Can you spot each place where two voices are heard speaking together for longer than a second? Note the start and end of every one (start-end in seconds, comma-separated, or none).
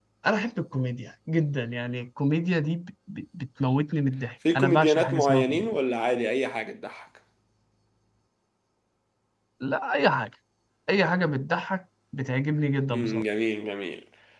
4.5-5.8